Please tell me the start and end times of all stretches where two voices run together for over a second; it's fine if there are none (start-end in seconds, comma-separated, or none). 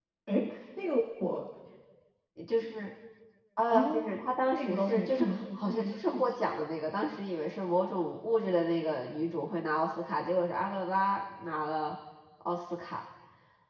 4.5-6.3